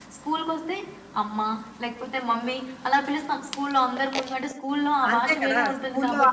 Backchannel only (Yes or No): No